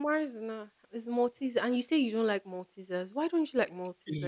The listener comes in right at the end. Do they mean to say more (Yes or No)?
Yes